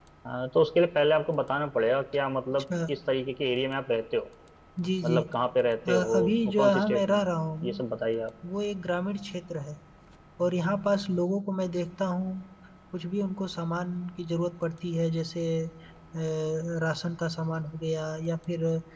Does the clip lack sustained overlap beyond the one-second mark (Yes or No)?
No